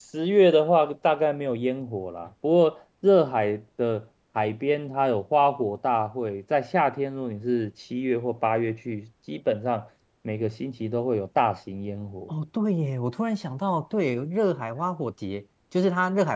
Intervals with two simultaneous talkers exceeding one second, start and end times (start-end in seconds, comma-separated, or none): none